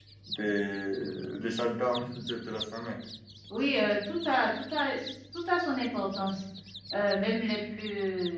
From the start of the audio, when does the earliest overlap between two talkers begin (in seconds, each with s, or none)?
none